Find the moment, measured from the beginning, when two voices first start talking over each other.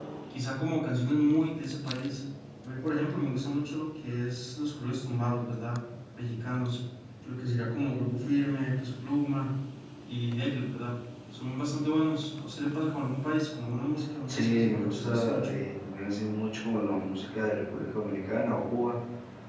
14.3 s

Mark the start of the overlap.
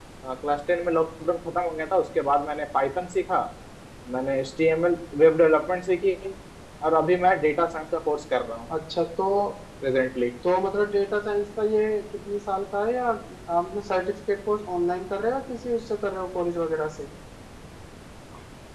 none

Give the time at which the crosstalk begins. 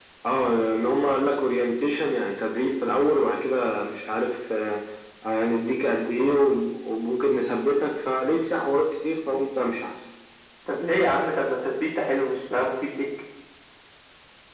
none

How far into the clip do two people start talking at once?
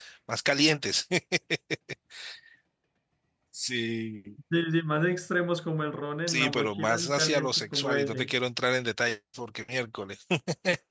6.3 s

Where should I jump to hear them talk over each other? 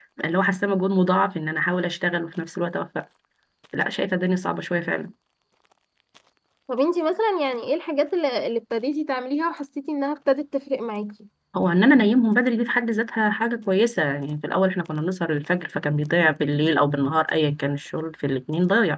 none

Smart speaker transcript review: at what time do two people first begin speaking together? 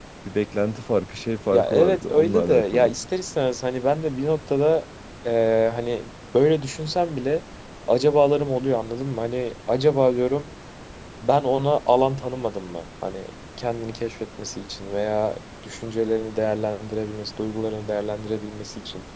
1.5 s

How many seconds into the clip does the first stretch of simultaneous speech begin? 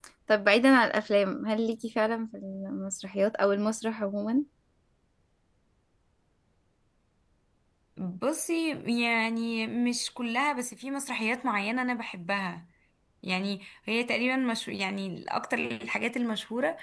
none

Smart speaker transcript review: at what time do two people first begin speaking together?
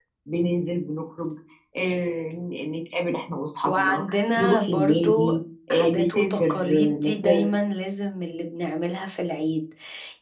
3.6 s

